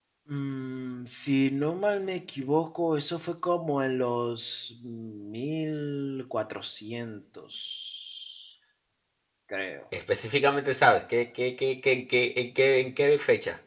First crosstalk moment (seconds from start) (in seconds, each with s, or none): none